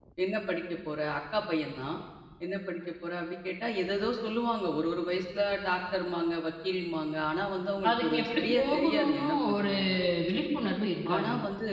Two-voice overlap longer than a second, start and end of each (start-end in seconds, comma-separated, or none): 7.9-9.7